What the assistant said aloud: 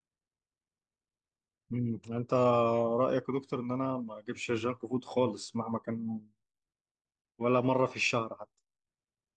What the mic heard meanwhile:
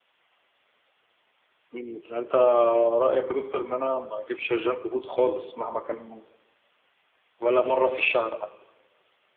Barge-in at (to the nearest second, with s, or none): none